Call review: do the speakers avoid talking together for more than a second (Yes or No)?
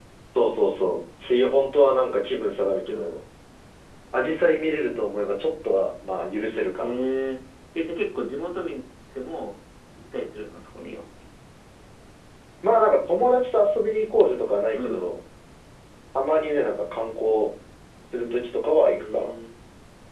Yes